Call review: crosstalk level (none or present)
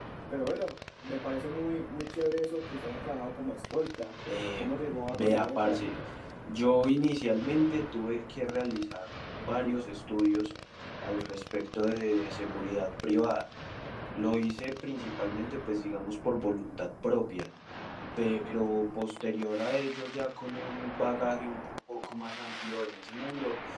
present